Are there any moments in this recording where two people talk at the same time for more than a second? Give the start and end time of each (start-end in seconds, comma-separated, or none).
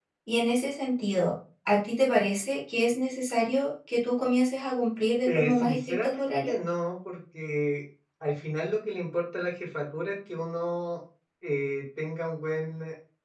5.2-6.5